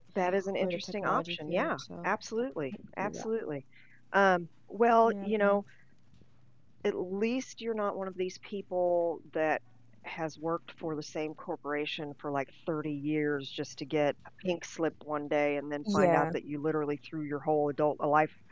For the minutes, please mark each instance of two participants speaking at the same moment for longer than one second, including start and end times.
0.6-2.1

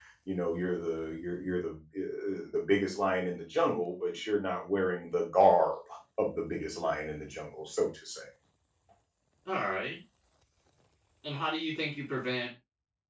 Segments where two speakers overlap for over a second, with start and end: none

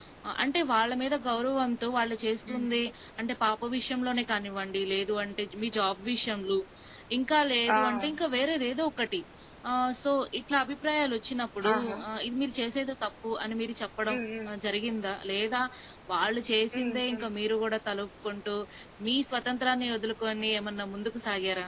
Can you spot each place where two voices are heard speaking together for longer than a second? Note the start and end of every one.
none

